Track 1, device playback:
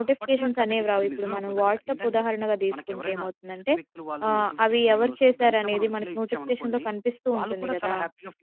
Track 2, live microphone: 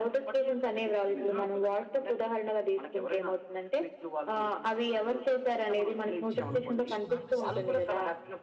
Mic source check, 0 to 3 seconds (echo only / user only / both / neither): echo only